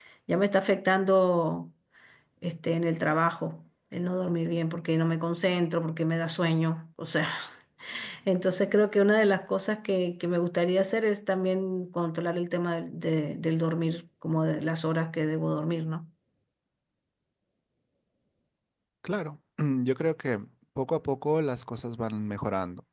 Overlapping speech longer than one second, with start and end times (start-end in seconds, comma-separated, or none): none